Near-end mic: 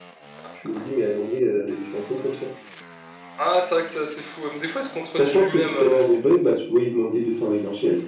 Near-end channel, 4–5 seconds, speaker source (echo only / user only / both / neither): echo only